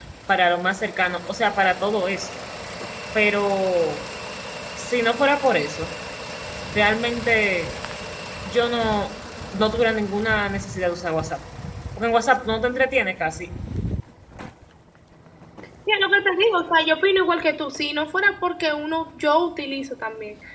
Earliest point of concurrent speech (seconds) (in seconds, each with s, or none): none